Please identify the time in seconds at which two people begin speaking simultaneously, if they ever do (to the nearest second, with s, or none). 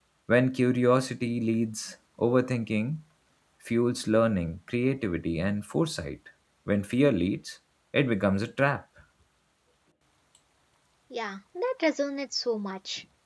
none